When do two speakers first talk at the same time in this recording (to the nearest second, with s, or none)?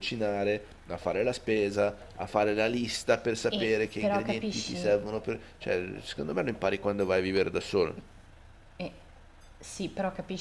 4 s